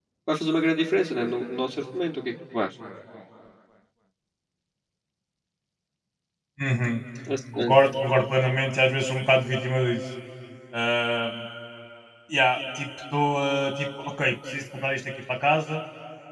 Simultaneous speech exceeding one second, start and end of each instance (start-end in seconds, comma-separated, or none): none